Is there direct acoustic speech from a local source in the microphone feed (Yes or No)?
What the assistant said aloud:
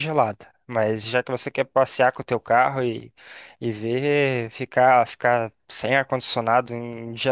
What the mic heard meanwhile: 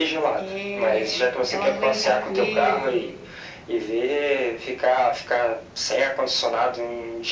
Yes